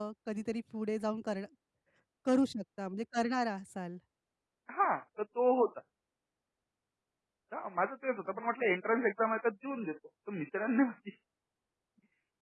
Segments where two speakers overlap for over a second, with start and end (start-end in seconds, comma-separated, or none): none